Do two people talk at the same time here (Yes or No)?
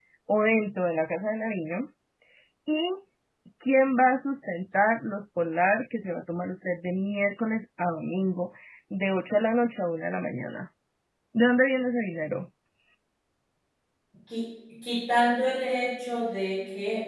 No